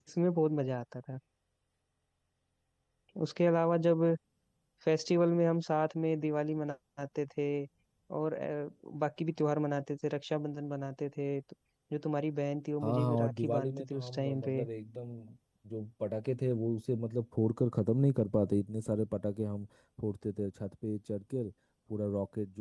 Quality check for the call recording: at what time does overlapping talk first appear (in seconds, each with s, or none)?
12.8 s